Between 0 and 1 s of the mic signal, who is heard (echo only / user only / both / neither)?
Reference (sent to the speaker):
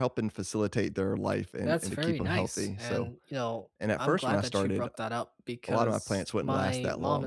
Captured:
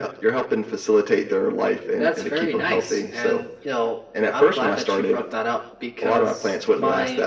echo only